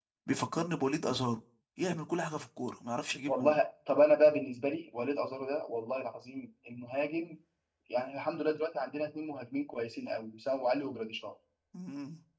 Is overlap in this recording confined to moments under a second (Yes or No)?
Yes